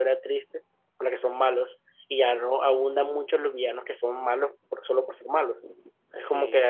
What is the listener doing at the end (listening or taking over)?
listening